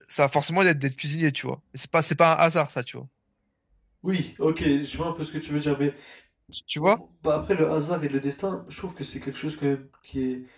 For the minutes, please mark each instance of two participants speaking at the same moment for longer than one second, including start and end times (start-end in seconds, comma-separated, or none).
none